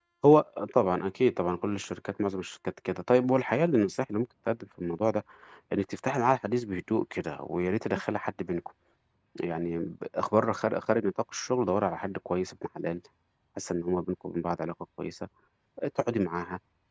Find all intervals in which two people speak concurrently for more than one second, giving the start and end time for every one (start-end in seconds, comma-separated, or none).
none